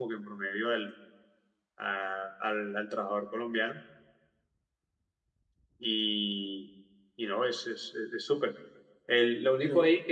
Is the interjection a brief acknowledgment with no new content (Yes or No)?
Yes